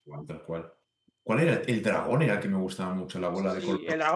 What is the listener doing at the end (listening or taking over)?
taking over